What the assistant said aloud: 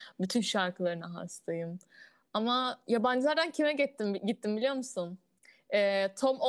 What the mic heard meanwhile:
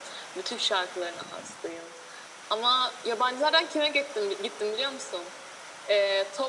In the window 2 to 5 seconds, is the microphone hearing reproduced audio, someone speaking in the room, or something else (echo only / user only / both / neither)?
echo only